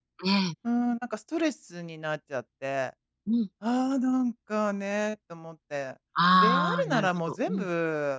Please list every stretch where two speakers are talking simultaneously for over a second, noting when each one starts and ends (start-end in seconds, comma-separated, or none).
6.3-7.6